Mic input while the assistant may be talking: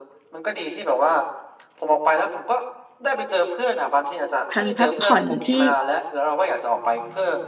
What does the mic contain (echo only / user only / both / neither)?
both